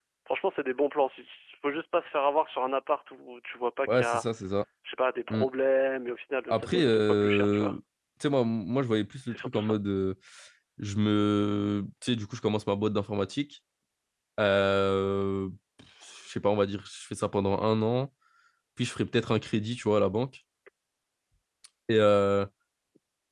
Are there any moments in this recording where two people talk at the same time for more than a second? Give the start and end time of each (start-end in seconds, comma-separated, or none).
6.5-7.7